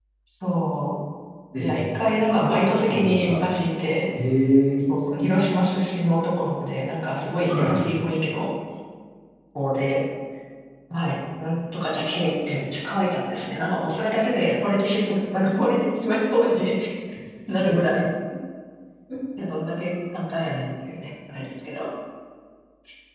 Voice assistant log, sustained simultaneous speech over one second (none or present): present